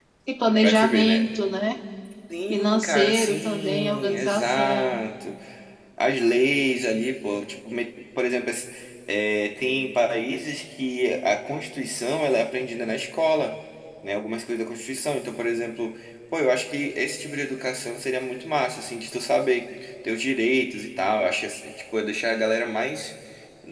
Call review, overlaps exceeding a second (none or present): present